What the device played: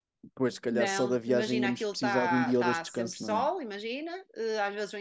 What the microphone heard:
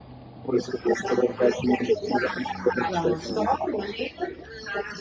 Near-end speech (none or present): present